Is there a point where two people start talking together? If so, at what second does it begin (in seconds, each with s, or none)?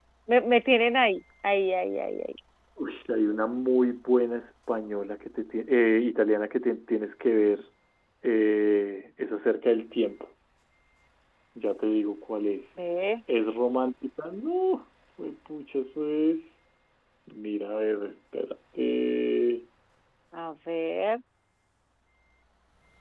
none